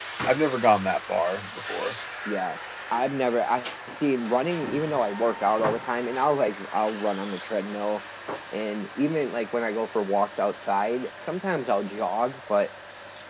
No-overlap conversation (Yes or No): Yes